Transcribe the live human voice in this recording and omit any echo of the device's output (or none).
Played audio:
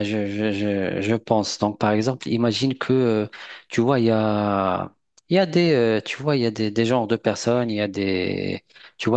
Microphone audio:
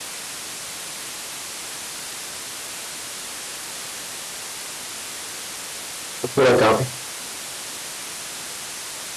on peut la garder.